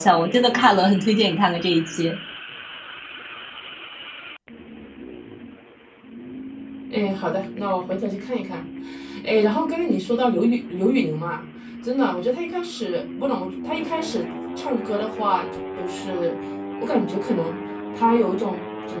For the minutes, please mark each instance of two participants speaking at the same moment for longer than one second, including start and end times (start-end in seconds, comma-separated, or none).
none